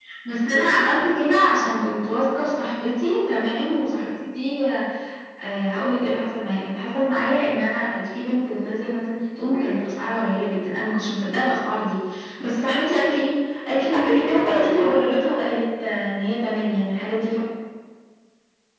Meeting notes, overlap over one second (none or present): present